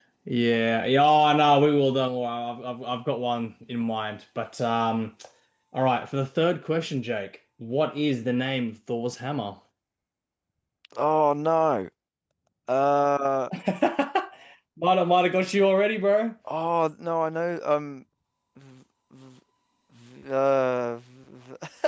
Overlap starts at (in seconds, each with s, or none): none